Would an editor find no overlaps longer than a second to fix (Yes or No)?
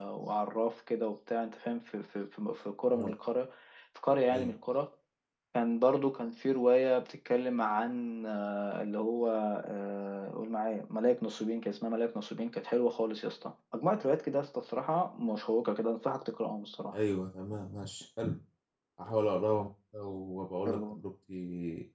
Yes